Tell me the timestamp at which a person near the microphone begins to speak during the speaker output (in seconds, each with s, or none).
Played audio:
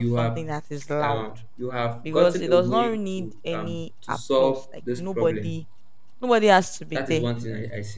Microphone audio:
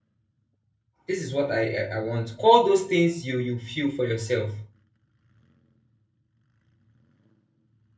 1.1 s